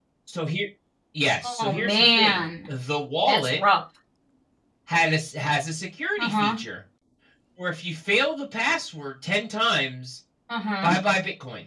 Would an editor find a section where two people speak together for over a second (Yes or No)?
Yes